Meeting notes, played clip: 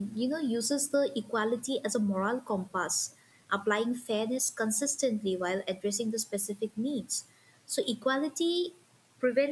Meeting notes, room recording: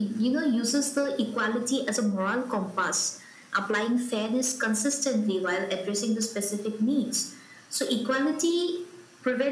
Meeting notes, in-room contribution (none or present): none